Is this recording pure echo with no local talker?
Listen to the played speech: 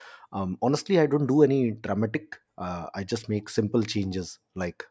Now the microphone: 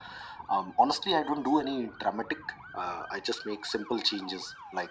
Yes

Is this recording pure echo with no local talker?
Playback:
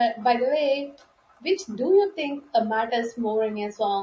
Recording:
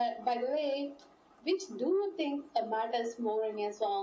Yes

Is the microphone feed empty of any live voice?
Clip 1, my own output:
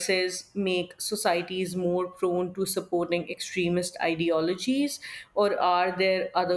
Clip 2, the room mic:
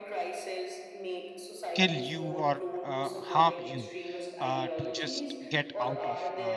No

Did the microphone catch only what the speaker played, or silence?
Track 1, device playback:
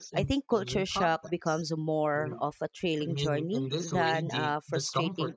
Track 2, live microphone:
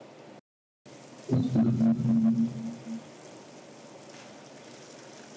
No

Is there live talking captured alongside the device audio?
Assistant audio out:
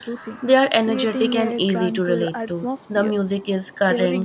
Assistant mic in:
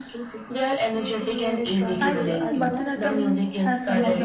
Yes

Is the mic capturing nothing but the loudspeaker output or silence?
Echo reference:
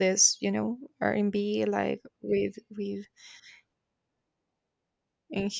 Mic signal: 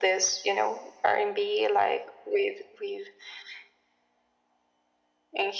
Yes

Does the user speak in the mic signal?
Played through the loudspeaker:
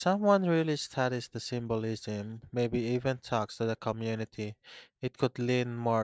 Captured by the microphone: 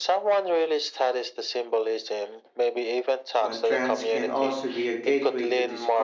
Yes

